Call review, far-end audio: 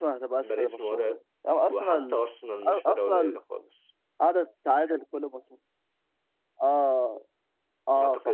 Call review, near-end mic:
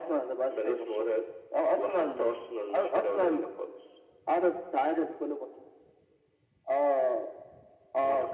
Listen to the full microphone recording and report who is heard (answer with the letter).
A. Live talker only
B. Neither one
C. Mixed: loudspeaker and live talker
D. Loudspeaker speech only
D